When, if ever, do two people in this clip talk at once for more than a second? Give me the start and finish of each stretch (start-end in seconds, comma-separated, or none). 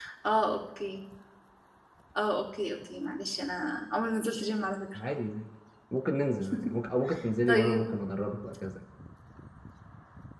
none